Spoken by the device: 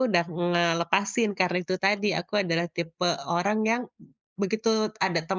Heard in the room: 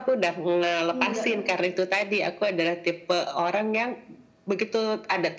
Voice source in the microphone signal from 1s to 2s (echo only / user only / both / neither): both